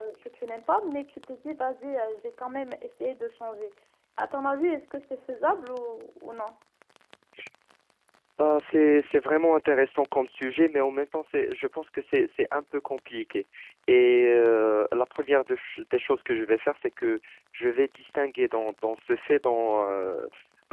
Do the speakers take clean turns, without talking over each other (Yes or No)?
Yes